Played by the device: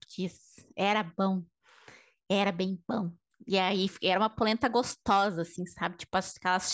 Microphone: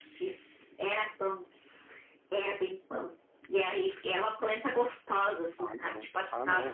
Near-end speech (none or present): present